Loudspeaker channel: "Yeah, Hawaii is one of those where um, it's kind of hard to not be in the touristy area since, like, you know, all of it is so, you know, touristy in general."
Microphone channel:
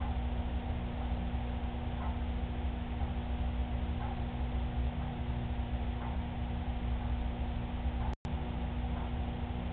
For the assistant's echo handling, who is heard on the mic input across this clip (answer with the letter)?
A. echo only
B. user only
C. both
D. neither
D